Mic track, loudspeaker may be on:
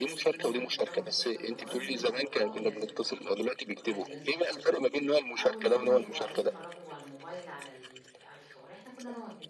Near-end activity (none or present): present